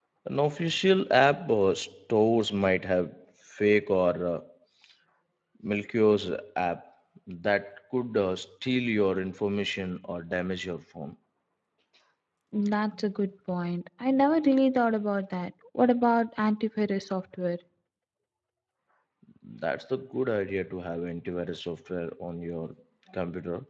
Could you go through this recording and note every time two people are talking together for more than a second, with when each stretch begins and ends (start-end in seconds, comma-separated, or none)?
none